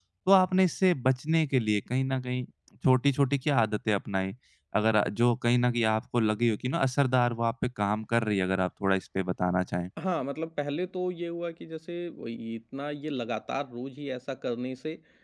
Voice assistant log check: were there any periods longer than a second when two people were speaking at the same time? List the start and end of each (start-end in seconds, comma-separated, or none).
none